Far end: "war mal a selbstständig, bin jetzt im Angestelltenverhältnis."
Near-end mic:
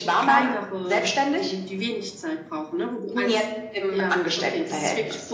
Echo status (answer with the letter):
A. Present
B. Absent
A